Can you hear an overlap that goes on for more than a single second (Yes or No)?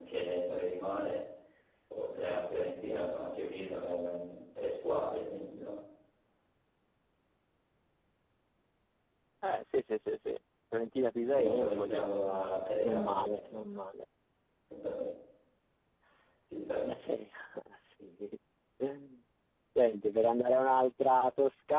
Yes